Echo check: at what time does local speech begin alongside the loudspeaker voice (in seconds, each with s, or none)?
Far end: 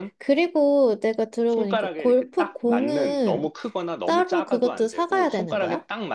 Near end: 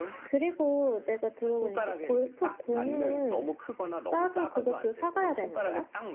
none